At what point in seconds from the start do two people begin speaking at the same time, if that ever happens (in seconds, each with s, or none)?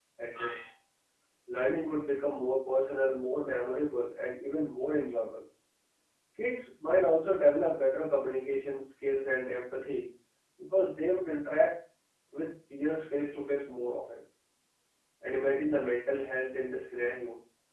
none